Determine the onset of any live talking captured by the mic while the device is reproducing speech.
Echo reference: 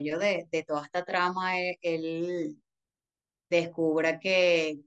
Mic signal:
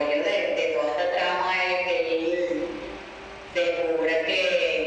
none

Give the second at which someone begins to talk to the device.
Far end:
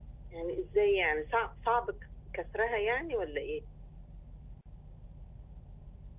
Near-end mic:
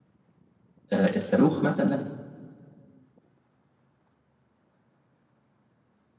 0.9 s

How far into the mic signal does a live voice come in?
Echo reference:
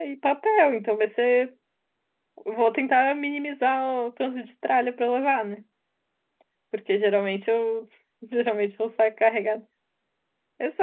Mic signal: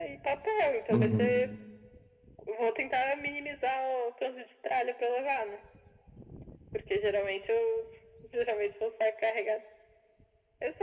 0.9 s

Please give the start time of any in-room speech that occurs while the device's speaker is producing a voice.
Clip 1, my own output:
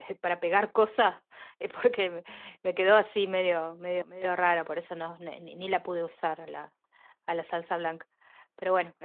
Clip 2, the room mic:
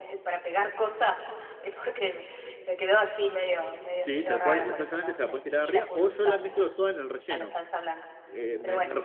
4.0 s

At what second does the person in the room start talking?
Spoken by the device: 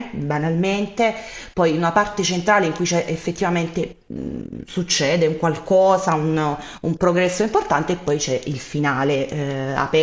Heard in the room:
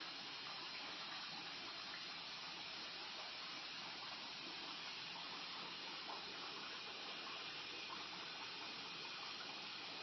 none

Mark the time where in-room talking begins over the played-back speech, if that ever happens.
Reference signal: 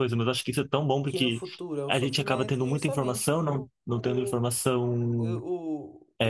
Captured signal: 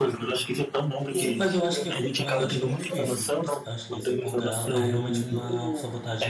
1.1 s

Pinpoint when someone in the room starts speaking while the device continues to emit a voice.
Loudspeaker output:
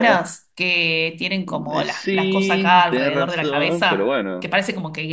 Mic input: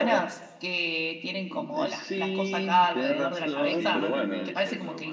3.5 s

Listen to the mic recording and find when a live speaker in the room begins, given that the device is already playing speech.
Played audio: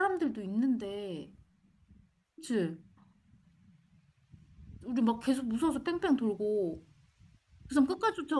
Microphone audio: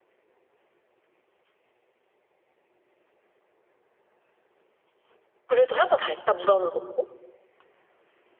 5.5 s

